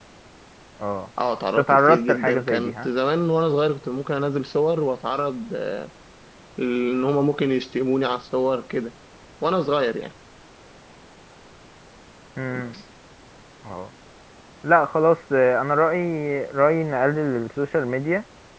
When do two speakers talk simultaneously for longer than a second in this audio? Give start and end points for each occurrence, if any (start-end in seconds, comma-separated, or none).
1.6-2.9